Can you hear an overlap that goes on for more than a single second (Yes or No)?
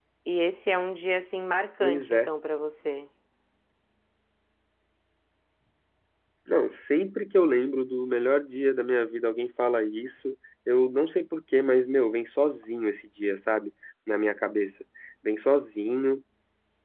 No